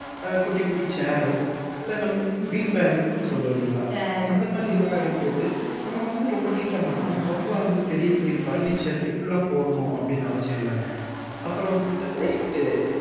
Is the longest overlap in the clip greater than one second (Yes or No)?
No